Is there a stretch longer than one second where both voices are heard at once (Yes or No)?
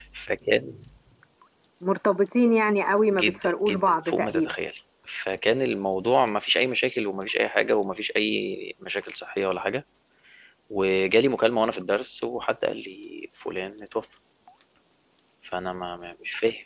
Yes